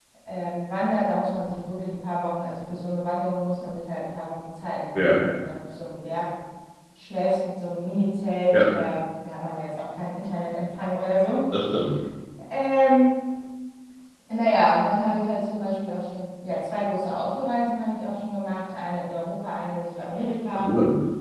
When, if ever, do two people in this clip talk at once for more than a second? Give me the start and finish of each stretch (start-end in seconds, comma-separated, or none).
none